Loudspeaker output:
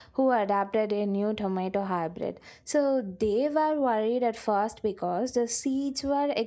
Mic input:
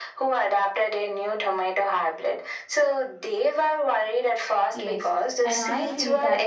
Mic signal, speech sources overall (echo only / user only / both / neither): both